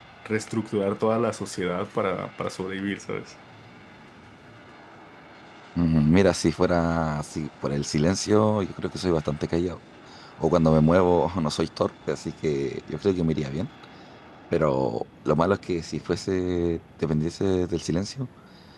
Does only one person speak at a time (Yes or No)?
Yes